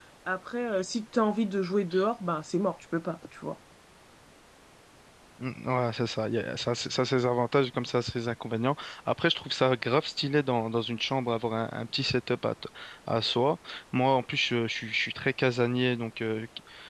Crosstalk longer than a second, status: none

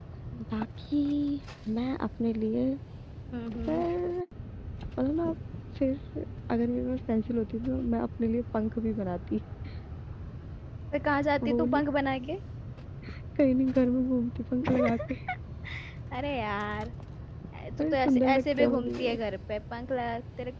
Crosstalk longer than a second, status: present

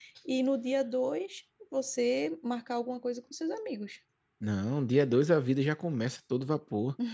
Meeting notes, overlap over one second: none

